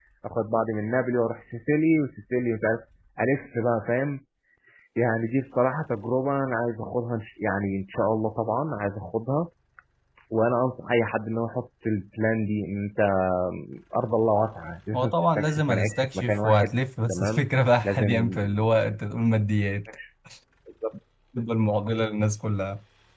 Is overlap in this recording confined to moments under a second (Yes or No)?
No